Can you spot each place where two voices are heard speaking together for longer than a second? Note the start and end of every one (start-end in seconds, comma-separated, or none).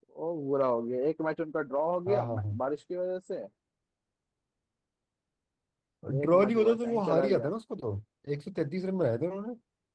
6.1-7.5